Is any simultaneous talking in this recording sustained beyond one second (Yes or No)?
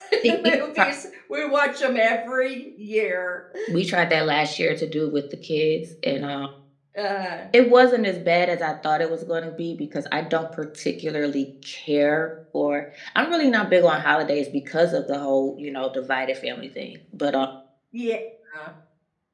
No